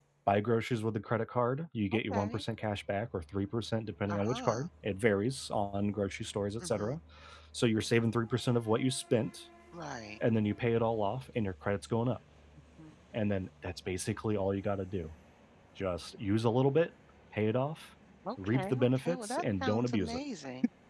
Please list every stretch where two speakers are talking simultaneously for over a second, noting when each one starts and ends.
18.4-20.2

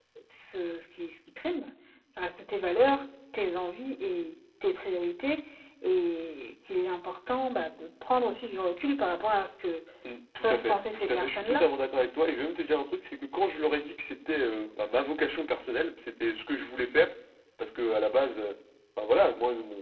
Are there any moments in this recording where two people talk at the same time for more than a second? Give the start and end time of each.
10.4-11.6

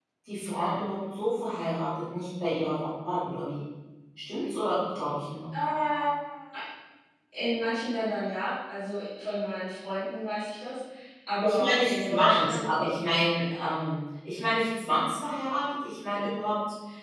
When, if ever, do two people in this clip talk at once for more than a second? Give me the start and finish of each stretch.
11.4-12.7

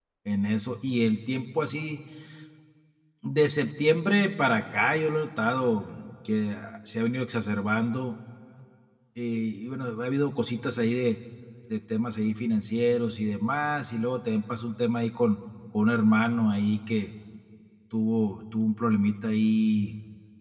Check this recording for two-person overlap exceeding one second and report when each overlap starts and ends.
none

